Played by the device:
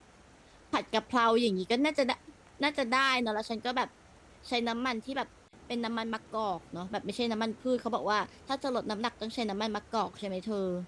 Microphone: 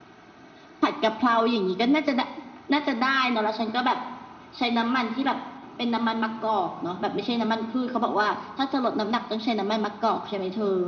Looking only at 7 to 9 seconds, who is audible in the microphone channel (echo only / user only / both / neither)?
echo only